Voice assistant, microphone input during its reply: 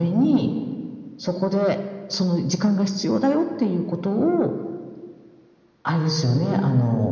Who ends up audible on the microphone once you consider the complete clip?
echo only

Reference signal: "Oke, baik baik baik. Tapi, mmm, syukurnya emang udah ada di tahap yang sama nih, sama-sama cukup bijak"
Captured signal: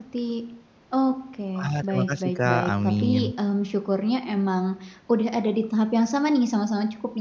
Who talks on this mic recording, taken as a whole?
both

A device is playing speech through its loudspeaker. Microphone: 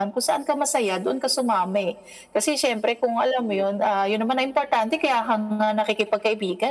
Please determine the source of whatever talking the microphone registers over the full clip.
echo only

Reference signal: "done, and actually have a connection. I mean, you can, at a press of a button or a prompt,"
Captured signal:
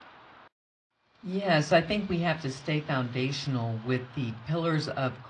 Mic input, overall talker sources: user only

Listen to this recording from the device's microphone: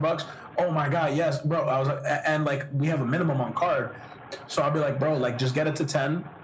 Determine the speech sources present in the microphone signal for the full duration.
echo only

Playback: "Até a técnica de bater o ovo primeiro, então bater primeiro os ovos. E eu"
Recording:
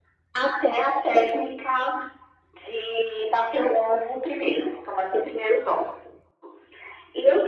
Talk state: echo only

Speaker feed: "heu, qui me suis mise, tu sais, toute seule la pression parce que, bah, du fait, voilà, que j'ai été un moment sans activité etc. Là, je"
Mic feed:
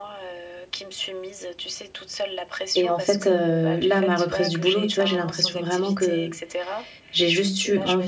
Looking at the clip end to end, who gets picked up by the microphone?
both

